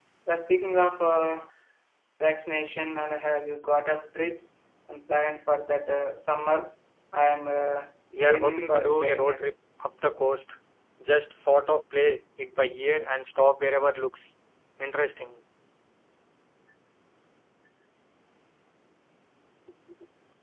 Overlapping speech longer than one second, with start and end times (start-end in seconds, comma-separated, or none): 8.1-9.5